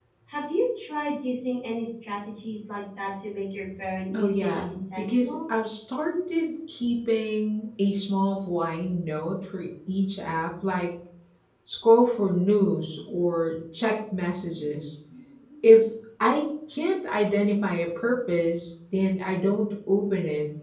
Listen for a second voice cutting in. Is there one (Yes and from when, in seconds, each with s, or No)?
Yes, from 4.1 s